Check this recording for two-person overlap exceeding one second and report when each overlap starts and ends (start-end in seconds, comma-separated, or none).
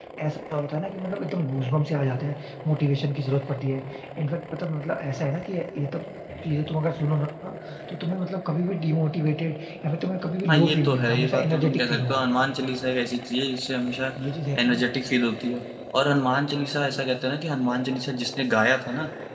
10.5-12.2